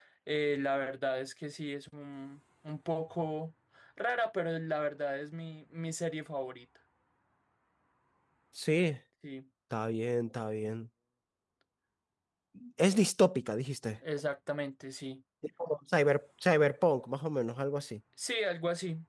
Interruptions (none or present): none